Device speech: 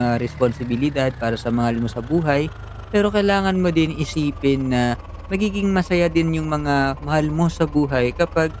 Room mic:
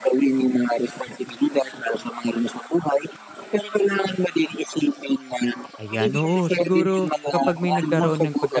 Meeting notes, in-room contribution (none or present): present